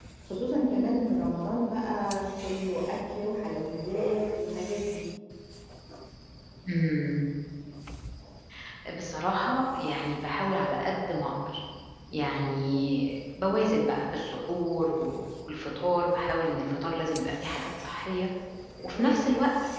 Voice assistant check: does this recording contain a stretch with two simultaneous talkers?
No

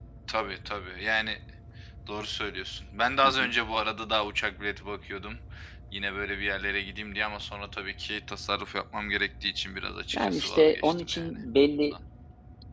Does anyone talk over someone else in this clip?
Yes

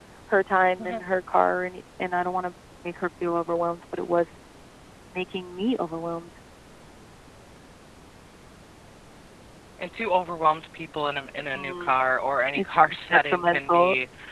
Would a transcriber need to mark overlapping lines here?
Yes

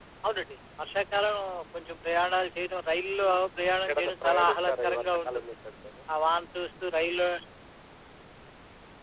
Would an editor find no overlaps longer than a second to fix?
No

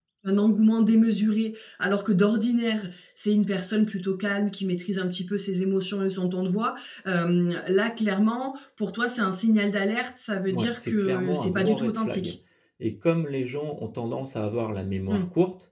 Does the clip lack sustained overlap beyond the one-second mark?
No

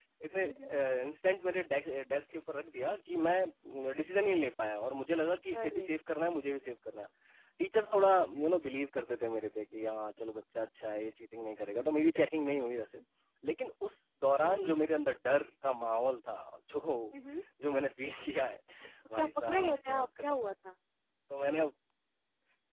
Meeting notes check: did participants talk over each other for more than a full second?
Yes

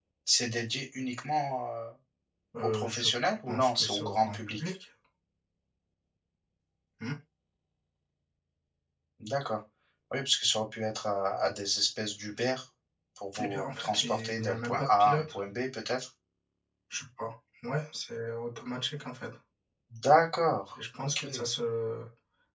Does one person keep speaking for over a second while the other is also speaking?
Yes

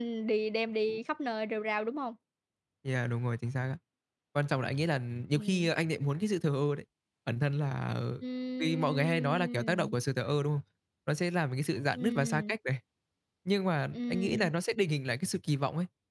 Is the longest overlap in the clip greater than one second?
Yes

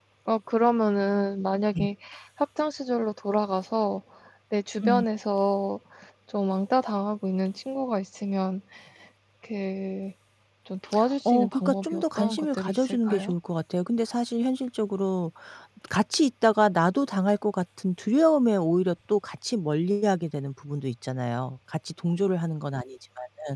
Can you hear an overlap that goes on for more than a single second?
Yes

